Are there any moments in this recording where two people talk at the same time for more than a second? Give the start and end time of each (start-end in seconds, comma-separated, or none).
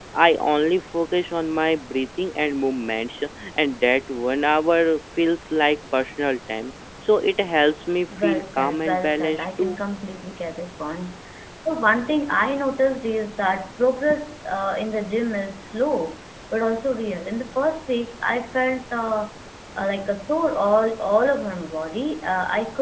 8.2-9.8